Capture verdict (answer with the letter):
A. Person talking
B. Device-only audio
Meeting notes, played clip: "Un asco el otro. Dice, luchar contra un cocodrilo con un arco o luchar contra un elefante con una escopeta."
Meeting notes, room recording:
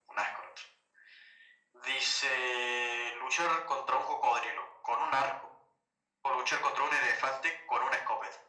B